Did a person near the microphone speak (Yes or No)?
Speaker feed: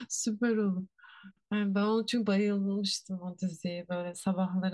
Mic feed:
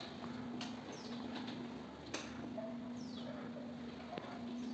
No